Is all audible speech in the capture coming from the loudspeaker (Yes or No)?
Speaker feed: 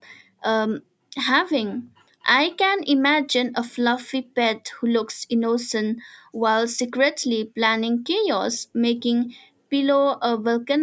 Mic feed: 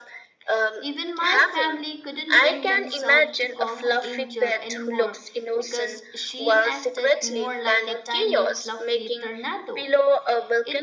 No